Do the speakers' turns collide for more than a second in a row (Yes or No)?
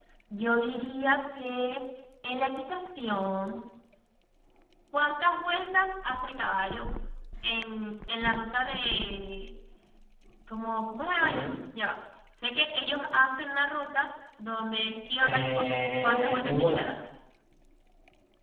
Yes